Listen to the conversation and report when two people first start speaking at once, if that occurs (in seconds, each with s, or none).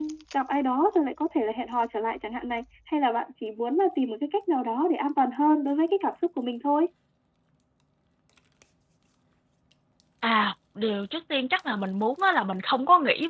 none